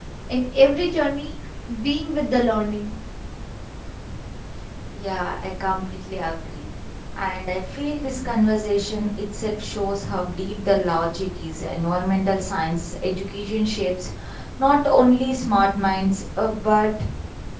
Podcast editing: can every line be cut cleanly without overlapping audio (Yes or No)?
Yes